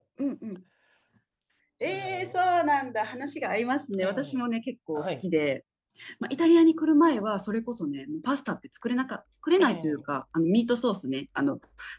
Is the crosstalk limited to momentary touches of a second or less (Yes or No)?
Yes